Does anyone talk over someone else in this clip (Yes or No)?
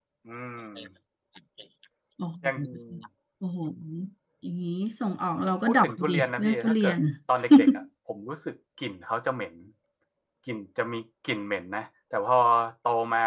Yes